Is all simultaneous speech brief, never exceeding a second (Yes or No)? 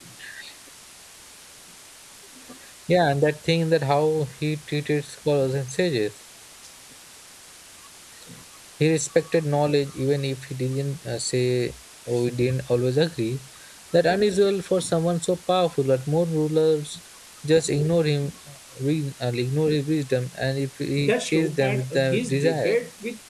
No